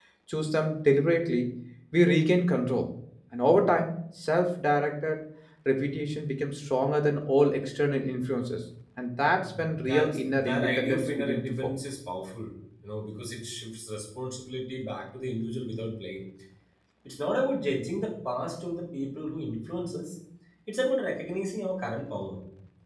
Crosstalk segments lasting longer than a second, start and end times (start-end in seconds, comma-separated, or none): 9.5-11.7